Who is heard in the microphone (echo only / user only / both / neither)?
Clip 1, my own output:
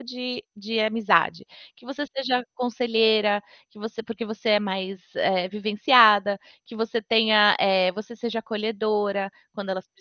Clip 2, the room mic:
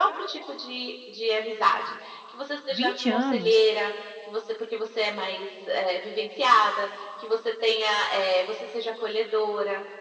both